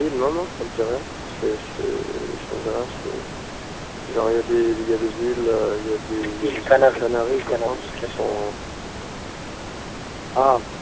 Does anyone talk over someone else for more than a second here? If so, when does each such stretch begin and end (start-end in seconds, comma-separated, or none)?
6.4-8.4